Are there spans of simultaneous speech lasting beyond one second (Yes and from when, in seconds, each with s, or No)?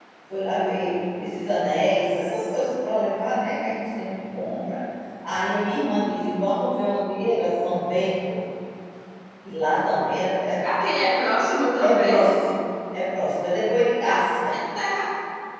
No